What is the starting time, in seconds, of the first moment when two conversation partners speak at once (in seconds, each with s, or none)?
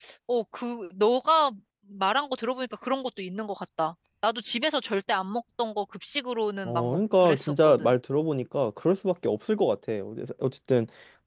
6.6 s